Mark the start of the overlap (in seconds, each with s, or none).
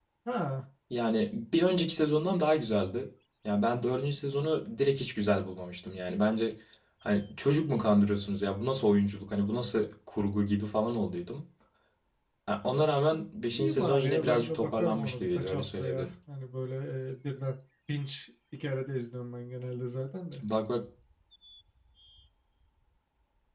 13.5 s